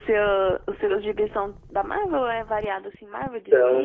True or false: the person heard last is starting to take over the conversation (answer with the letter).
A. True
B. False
A